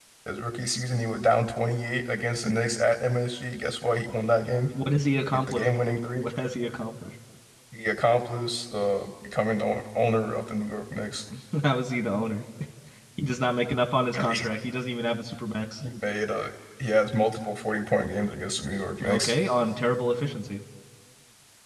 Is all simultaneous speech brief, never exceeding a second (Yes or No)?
Yes